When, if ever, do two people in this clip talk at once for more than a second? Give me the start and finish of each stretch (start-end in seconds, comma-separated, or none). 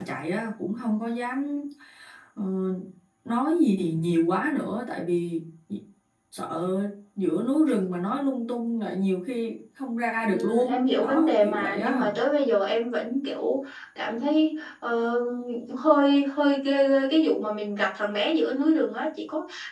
10.3-12.1